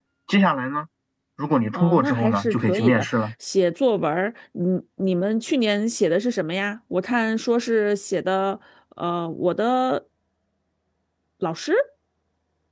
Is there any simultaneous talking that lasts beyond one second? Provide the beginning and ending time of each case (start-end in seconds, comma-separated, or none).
1.7-3.1